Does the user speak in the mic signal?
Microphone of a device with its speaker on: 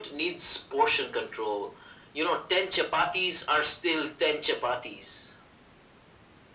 No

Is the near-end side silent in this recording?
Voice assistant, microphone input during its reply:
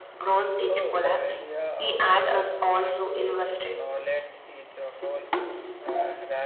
No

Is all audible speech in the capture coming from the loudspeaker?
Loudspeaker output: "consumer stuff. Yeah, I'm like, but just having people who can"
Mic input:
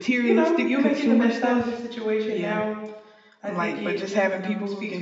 No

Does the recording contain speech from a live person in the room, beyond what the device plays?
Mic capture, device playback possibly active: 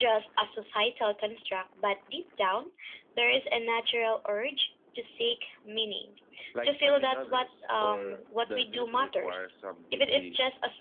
Yes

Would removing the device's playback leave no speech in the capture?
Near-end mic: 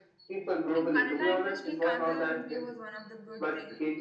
No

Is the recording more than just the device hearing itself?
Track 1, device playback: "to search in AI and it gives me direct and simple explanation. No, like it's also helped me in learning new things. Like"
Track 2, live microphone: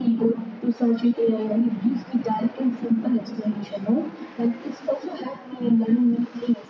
No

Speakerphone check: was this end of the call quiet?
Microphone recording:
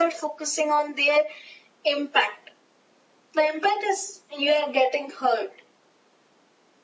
Yes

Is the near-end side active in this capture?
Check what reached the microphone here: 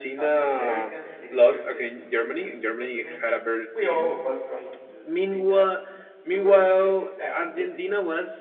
Yes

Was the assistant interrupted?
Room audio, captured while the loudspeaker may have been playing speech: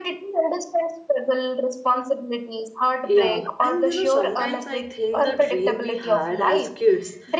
Yes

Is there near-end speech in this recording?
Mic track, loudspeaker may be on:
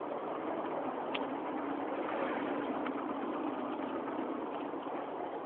No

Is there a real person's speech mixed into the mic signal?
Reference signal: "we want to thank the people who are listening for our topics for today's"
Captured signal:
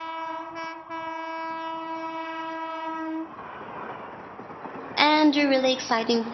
Yes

